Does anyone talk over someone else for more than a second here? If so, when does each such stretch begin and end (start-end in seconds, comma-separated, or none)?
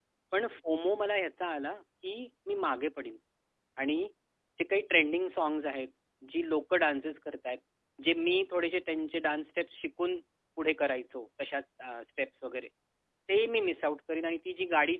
none